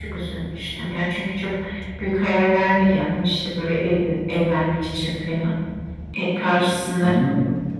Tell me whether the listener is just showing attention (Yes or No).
No